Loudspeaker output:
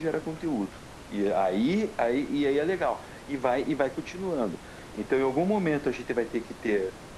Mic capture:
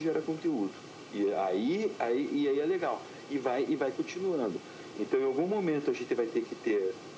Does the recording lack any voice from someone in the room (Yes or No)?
Yes